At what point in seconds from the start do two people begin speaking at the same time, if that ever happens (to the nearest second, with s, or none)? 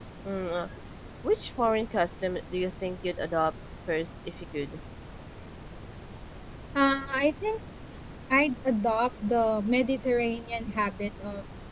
none